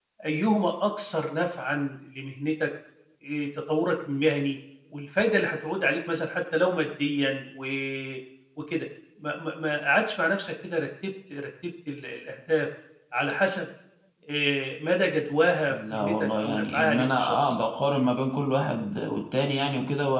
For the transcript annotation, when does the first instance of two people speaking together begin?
15.7 s

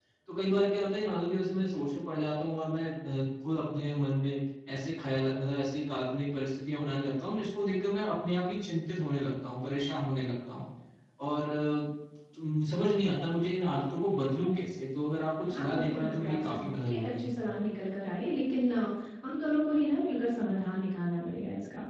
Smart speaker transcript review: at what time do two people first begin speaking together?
15.4 s

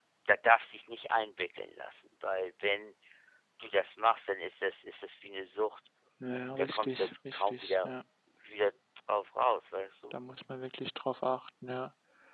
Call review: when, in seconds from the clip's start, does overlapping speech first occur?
6.6 s

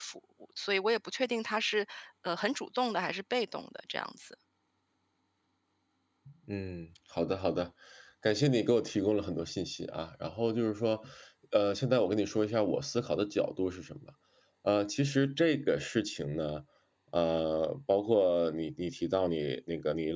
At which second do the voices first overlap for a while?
none

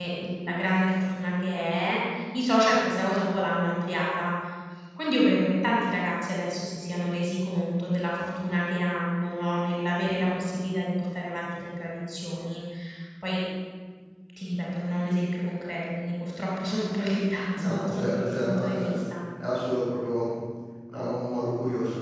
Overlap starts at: 17.6 s

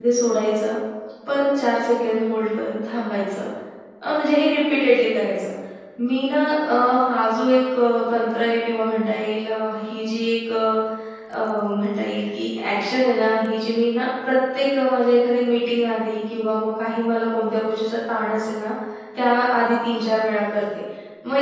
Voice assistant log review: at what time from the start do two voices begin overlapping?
none

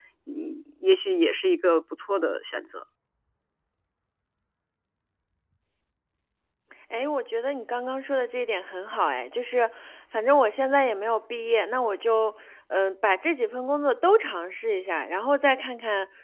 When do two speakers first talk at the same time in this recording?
none

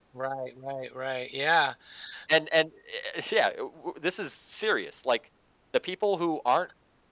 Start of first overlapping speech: none

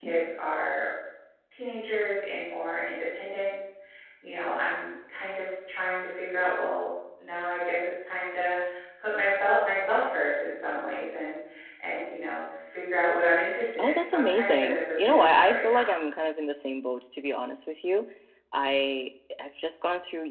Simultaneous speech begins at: 13.7 s

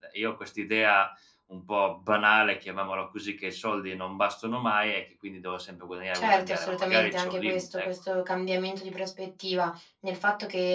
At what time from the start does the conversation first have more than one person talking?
6.1 s

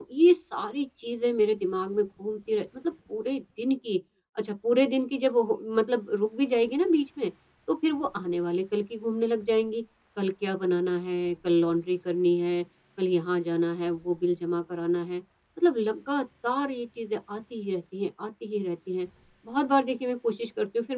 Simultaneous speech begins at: none

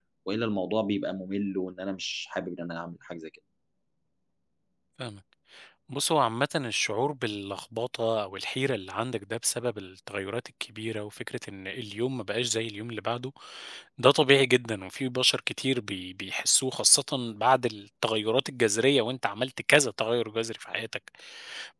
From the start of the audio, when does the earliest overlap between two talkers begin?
none

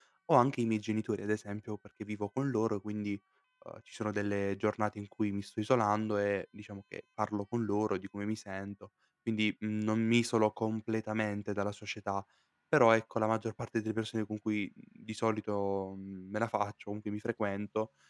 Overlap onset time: none

